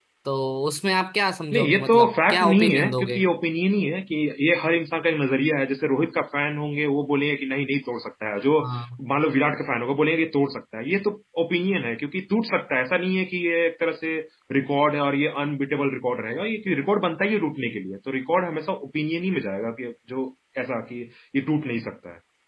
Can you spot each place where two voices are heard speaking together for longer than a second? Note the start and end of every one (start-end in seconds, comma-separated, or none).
1.5-3.2